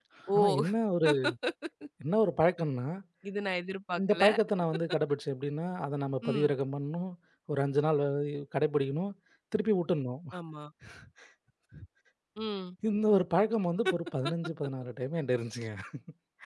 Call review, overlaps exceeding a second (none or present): none